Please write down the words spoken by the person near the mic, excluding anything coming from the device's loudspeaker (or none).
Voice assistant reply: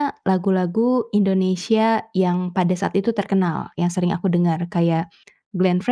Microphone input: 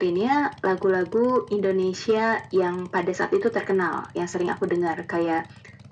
none